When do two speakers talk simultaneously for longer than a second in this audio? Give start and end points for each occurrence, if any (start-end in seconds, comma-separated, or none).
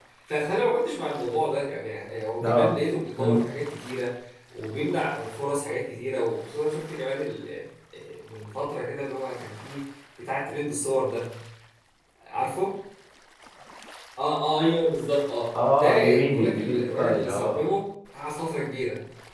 15.5-17.6